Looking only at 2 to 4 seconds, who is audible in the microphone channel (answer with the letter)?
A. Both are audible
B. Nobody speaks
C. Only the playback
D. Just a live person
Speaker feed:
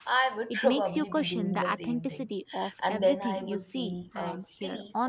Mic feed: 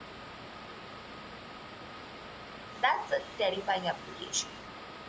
D